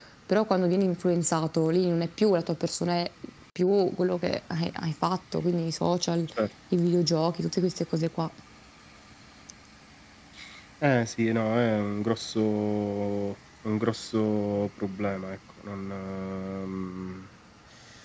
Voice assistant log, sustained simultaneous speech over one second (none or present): none